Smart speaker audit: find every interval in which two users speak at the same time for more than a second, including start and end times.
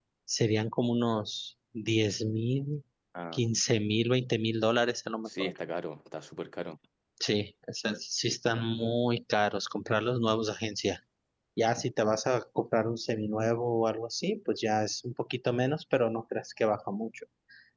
none

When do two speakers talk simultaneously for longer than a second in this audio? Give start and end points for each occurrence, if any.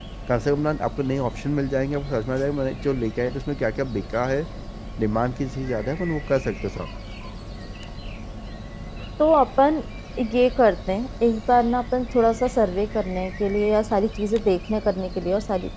none

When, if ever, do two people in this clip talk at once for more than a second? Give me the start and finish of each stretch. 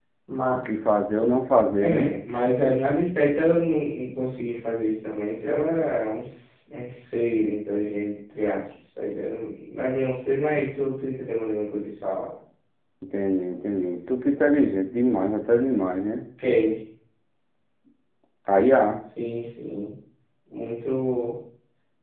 none

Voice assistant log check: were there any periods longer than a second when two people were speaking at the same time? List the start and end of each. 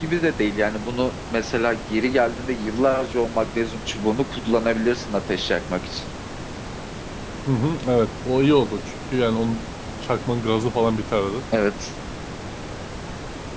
none

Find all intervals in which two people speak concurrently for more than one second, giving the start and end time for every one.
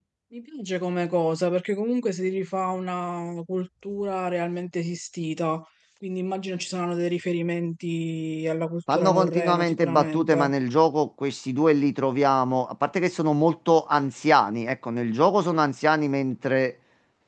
8.9-10.5

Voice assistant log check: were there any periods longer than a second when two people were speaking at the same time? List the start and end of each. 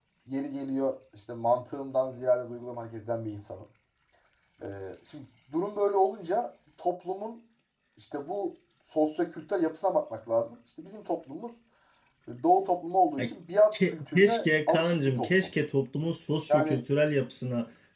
13.7-15.3

